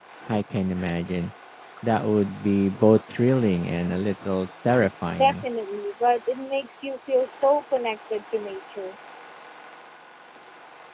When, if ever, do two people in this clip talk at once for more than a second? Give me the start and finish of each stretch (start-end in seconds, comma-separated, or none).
none